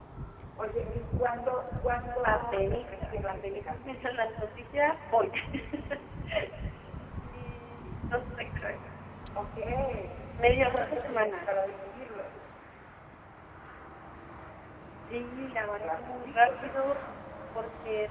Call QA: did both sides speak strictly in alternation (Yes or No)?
No